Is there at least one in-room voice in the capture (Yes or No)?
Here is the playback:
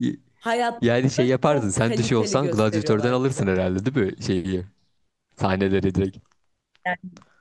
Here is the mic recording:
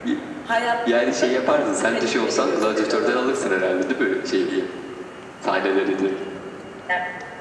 No